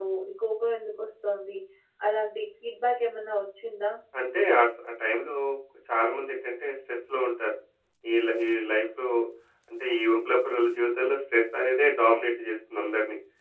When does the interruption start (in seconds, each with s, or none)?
none